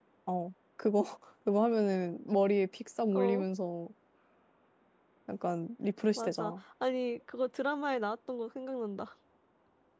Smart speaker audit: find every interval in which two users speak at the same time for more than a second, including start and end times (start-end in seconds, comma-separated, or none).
none